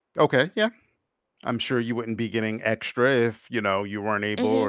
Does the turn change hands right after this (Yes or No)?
Yes